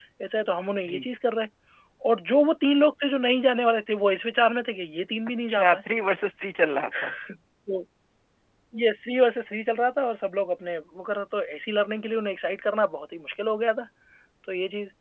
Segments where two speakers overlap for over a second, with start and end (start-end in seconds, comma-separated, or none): none